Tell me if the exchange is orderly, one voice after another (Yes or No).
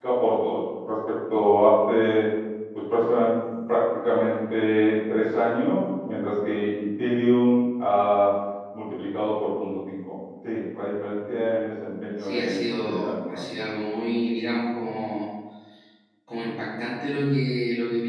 No